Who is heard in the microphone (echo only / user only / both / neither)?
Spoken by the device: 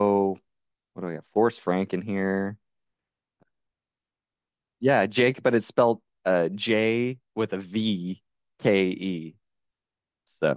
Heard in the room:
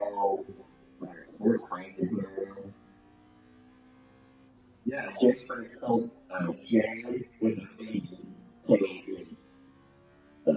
echo only